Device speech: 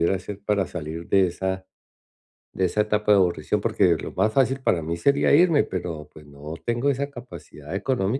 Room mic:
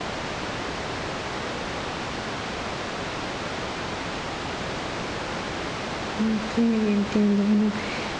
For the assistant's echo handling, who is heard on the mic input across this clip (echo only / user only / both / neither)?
user only